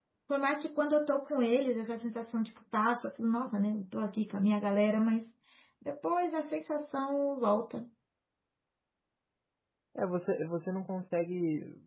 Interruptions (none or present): none